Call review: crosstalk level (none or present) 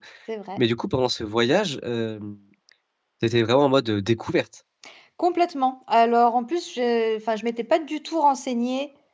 none